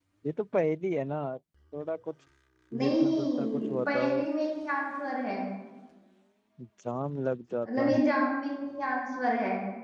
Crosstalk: present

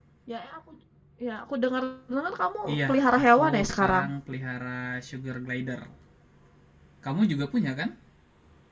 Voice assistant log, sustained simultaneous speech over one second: present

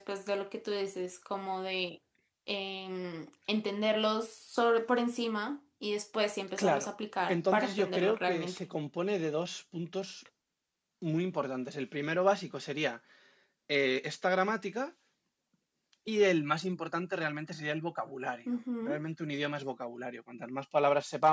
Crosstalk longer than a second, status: present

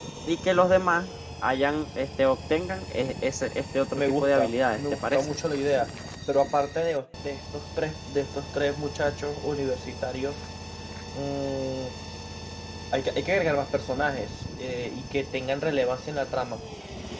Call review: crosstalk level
present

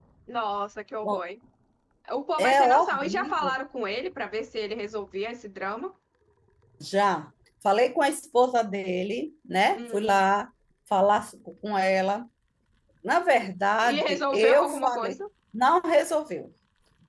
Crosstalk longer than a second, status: present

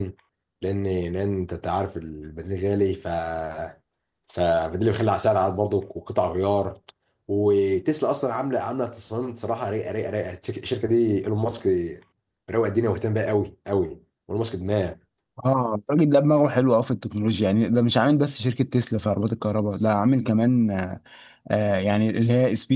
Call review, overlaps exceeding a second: none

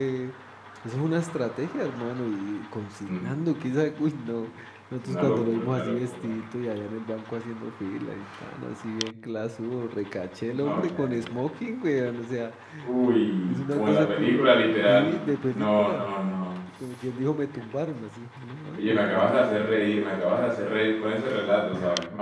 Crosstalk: present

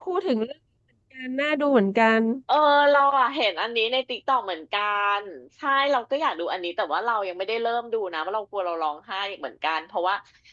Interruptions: none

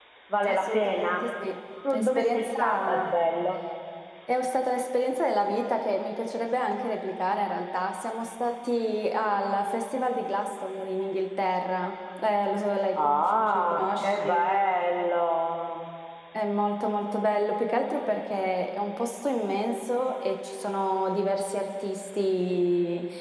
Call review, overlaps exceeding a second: present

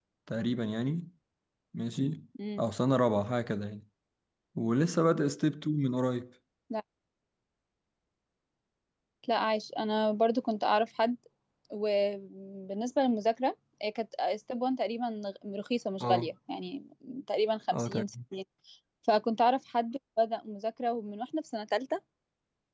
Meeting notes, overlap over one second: none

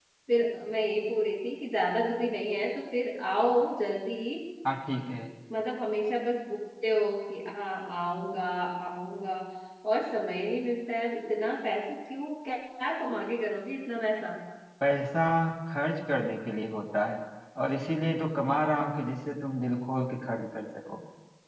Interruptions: none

